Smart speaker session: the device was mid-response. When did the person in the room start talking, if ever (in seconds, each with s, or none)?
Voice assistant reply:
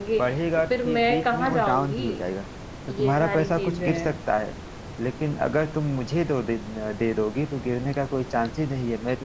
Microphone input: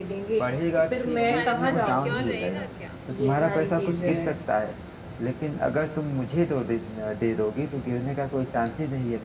1.0 s